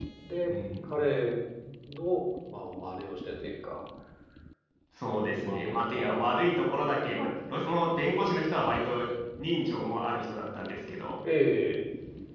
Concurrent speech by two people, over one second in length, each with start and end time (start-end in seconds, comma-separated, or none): 5.3-6.5